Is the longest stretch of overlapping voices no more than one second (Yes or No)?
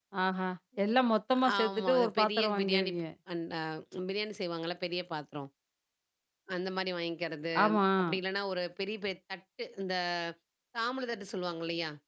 No